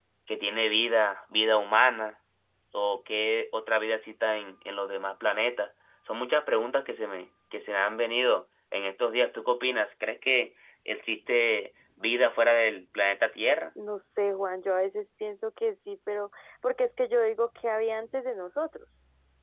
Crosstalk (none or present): none